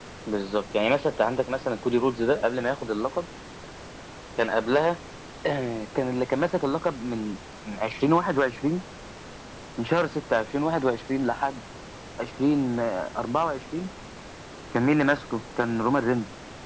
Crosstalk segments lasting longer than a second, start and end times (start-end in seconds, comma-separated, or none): none